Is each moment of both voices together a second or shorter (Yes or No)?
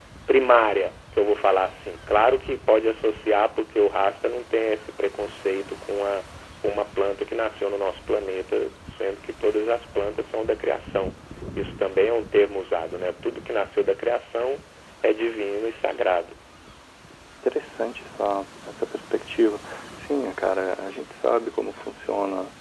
Yes